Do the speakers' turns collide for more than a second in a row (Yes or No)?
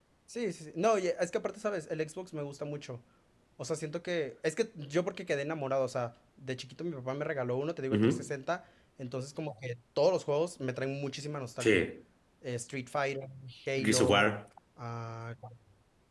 No